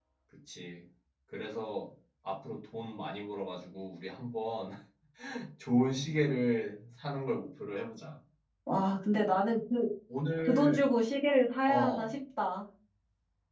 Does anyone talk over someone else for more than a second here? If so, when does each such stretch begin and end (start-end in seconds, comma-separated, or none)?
none